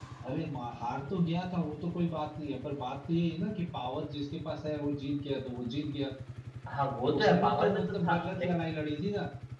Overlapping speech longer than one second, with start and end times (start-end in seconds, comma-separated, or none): 7.2-8.5